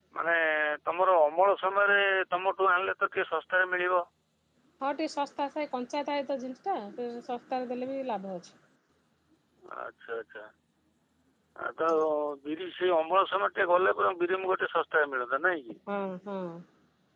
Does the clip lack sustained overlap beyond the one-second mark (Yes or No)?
Yes